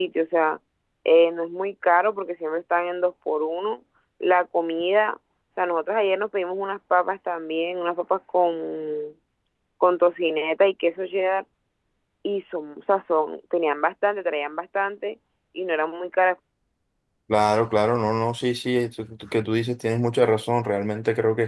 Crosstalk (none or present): none